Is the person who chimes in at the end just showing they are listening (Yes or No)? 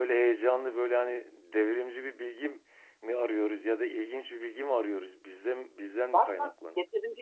No